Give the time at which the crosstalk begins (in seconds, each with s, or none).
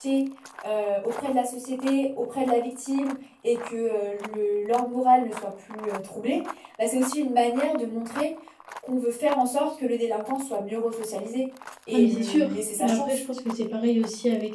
11.9 s